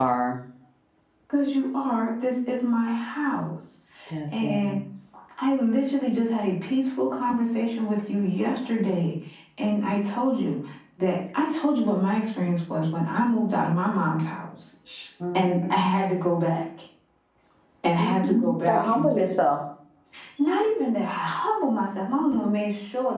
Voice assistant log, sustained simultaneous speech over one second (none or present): present